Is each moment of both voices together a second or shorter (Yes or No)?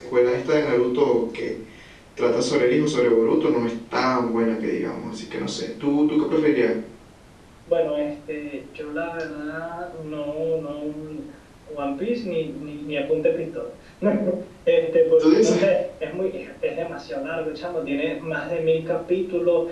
Yes